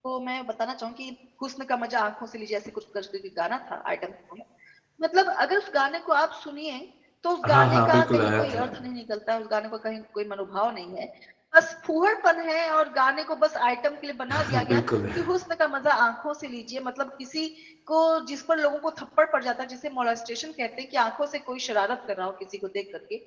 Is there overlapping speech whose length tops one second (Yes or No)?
Yes